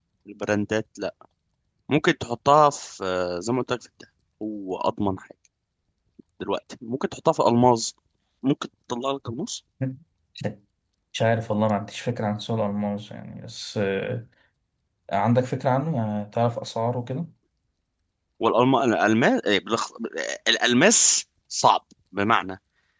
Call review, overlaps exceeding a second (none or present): none